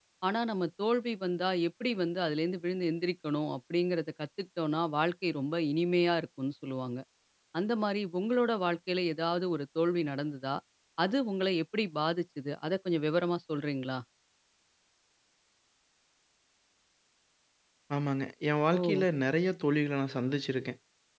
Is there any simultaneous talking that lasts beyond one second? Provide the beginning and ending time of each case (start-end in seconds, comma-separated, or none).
none